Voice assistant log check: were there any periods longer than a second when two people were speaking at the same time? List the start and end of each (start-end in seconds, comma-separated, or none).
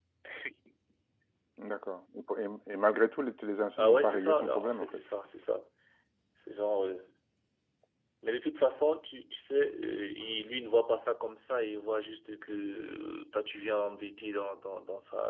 3.8-5.0